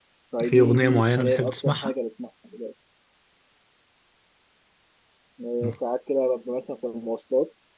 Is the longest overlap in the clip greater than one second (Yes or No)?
Yes